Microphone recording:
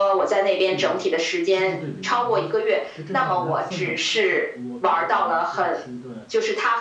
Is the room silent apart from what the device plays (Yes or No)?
No